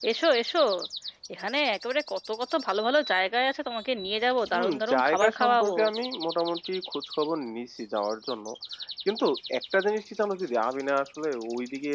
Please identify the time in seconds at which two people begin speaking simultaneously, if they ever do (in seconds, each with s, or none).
4.5 s